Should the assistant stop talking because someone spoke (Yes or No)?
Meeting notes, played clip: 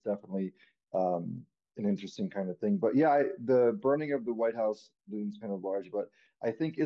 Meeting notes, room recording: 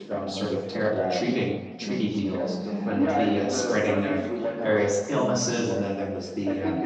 Yes